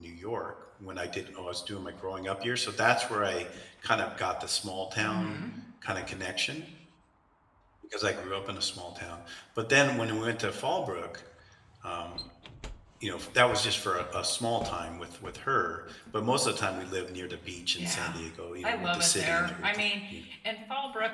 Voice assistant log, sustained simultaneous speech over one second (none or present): present